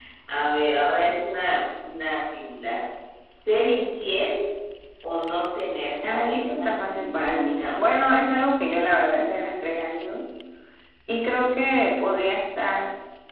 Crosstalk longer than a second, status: present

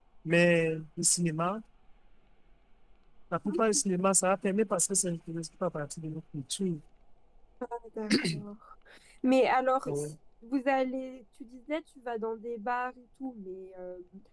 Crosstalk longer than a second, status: none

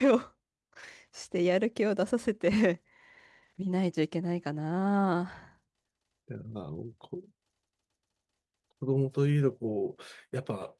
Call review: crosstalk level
none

